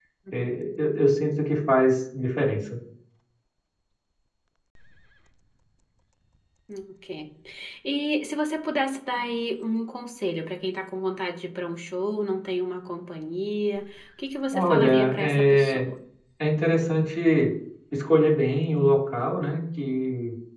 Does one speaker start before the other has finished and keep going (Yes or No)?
Yes